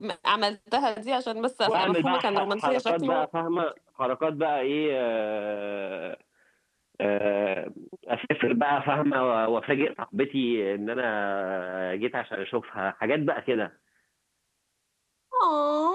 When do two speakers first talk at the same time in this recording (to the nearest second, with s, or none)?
2 s